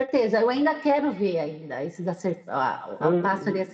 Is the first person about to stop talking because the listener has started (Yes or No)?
No